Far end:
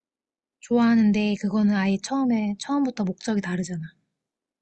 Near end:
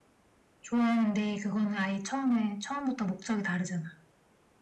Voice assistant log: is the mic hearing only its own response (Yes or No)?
Yes